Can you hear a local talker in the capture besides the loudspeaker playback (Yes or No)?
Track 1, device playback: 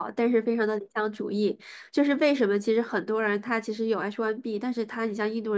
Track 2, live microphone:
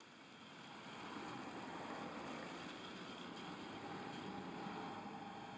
No